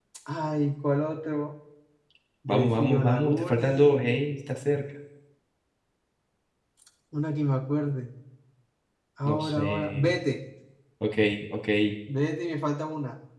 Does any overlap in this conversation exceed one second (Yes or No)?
Yes